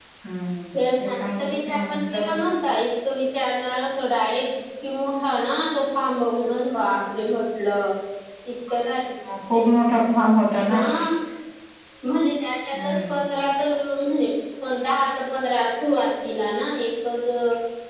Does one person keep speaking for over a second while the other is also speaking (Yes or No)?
Yes